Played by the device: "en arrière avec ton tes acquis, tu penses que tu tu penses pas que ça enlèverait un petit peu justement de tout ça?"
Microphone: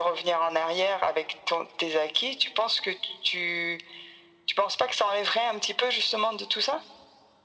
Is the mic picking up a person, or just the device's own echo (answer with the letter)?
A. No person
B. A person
A